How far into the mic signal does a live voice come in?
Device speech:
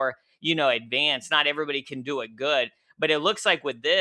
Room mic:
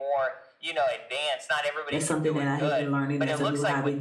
1.9 s

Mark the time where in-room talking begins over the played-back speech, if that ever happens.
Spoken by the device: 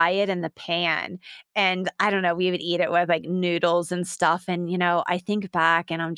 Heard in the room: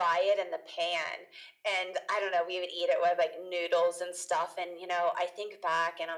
none

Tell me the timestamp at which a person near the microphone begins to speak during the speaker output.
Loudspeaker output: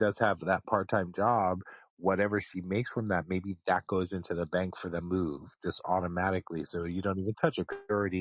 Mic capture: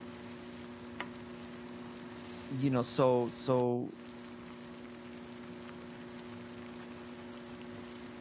2.5 s

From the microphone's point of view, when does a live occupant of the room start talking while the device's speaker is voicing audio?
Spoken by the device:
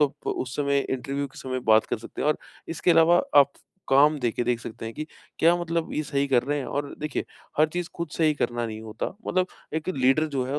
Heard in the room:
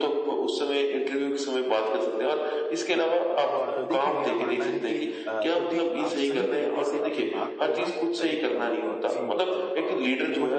3.5 s

